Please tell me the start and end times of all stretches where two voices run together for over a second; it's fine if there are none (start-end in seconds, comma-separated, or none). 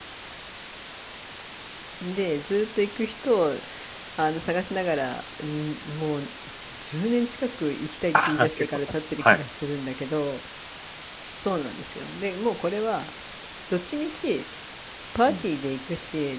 8.1-9.4